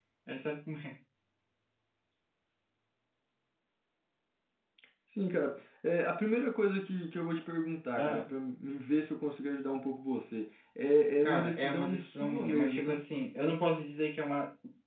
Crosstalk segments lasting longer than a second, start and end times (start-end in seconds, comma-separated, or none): 11.2-13.0